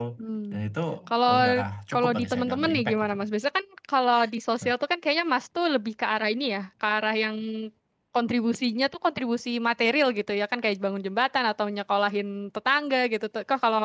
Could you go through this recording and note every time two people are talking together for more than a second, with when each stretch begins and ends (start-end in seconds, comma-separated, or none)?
1.9-3.2